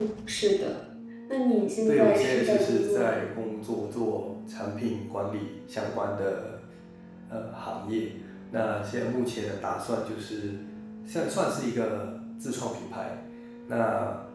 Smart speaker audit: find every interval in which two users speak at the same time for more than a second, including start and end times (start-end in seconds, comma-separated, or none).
1.9-3.3